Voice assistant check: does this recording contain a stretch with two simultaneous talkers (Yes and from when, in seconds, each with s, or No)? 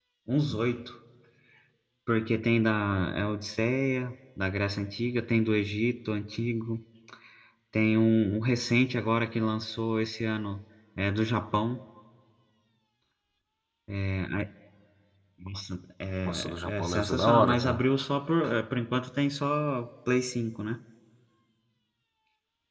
Yes, from 16.2 s